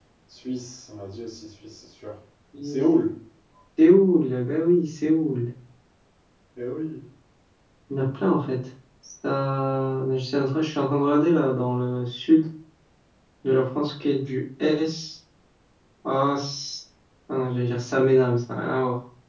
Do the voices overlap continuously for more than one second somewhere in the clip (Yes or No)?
No